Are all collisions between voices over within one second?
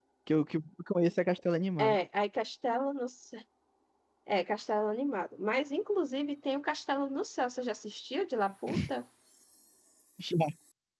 Yes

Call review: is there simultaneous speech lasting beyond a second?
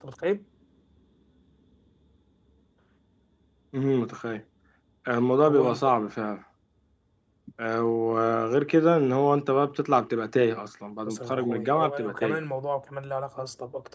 Yes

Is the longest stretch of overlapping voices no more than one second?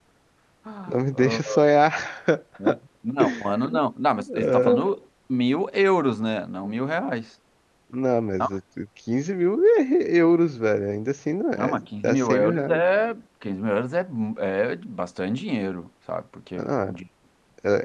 No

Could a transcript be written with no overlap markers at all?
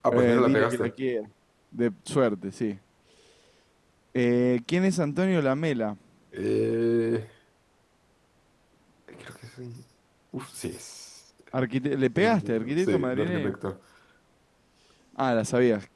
No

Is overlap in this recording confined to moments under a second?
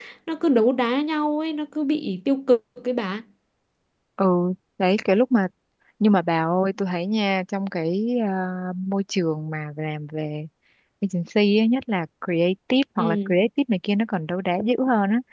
Yes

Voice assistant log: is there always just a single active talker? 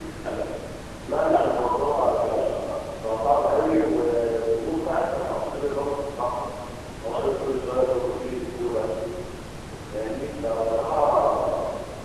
No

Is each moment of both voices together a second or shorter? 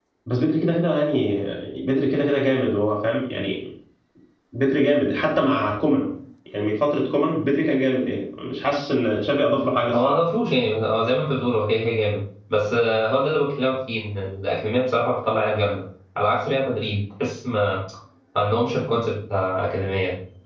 Yes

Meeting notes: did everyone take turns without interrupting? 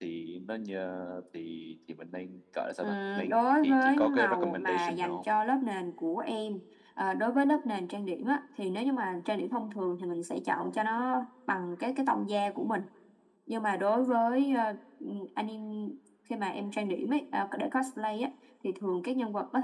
No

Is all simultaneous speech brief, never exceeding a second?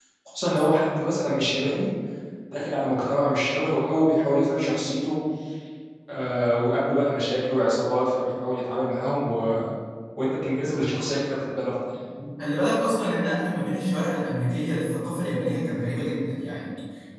Yes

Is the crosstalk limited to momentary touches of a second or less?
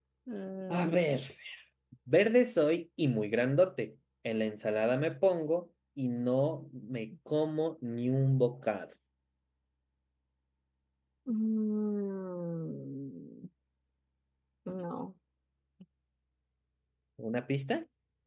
Yes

